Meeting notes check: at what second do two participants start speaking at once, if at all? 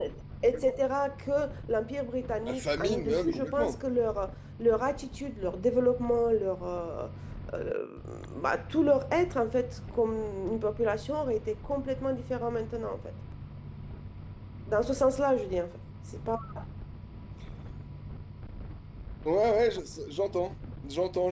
2.5 s

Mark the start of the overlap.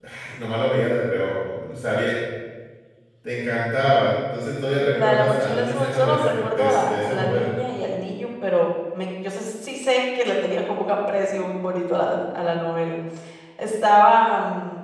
4.9 s

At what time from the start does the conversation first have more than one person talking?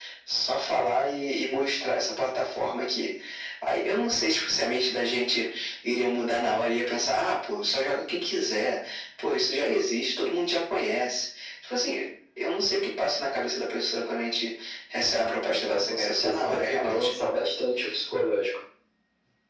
15.4 s

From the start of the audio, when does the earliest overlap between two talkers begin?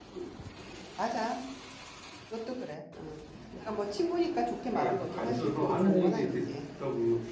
4.6 s

